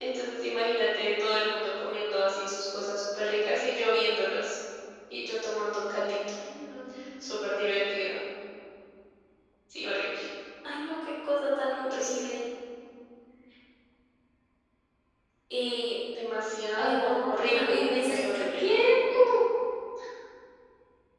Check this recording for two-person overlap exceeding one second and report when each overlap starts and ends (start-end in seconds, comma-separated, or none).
16.8-19.3